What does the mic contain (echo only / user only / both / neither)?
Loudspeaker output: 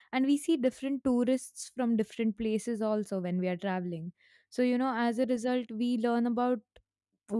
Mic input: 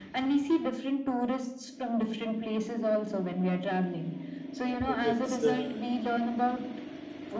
both